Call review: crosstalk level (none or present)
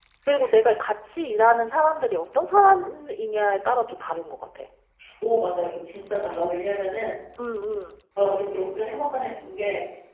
none